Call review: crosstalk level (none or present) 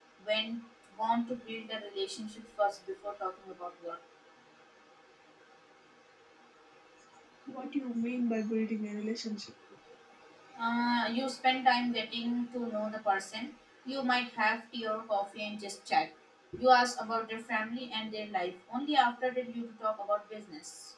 none